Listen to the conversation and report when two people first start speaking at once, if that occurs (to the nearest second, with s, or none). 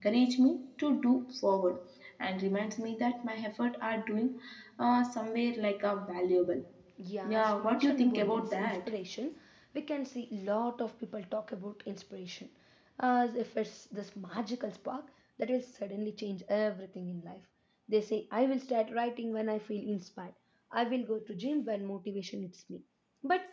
7 s